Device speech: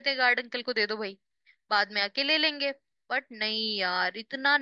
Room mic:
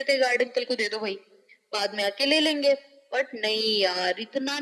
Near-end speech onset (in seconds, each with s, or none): none